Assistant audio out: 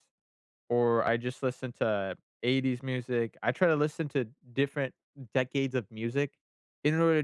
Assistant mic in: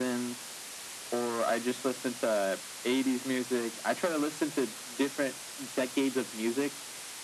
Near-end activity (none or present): none